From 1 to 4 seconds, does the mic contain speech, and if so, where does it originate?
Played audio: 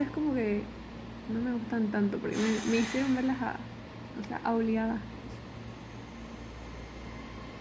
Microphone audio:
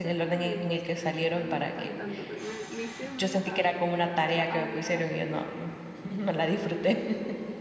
both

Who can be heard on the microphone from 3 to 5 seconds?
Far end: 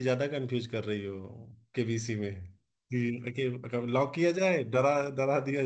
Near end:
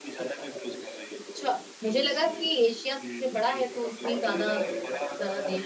both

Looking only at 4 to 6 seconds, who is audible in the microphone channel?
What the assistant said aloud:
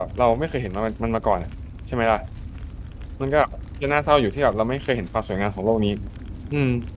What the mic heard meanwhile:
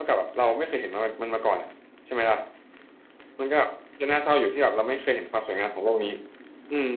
echo only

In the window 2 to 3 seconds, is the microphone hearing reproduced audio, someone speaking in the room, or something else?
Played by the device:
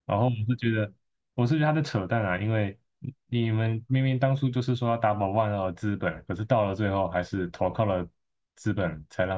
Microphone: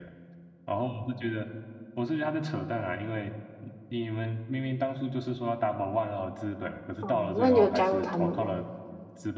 echo only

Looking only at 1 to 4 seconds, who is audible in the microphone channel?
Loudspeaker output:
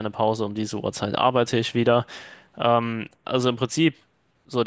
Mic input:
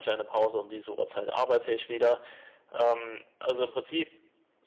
echo only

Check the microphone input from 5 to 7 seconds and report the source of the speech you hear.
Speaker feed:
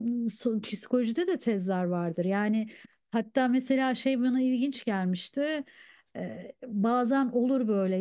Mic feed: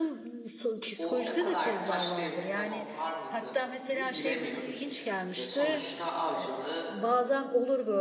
both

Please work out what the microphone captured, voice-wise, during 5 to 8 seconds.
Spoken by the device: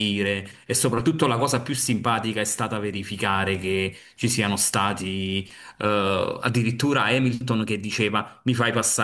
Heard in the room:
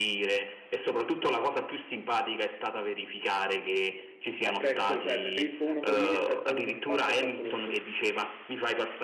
both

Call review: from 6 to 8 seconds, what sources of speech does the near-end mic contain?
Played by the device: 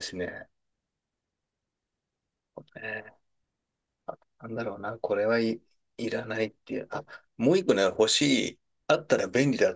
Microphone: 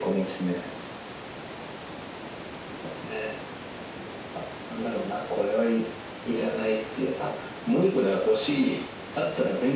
echo only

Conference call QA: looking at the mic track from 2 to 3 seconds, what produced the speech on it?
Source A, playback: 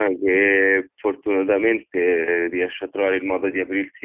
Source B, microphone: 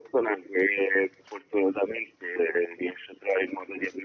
echo only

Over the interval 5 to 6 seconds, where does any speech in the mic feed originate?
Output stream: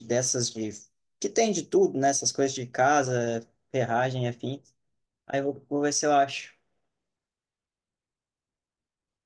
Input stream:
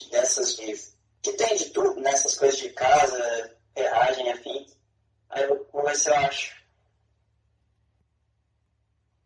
echo only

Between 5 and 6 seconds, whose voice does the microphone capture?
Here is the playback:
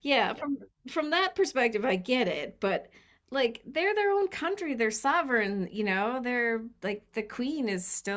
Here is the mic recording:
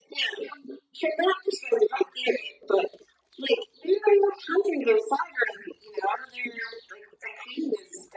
echo only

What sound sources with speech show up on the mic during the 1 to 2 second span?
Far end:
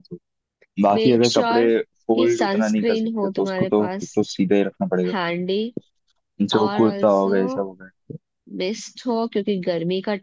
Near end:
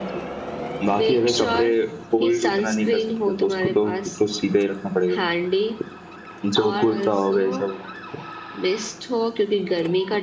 echo only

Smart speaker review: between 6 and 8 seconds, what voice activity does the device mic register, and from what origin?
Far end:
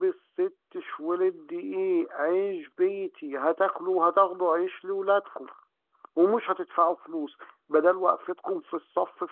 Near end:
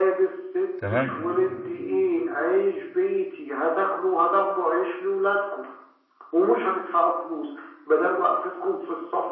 echo only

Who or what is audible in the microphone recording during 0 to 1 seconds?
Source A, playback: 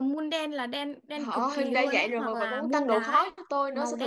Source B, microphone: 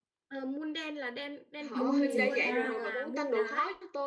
echo only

